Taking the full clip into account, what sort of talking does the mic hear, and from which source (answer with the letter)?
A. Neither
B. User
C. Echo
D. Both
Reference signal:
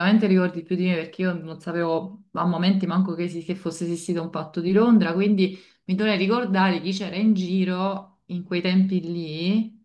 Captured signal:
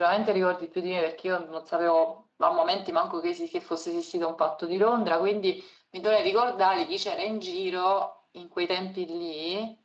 C